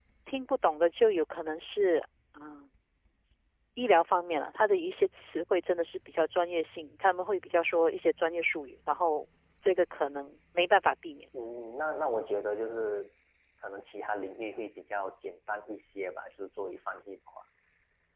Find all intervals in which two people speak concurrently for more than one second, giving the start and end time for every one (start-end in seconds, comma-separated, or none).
none